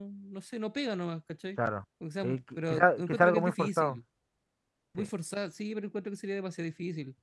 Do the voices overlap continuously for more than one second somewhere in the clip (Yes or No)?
Yes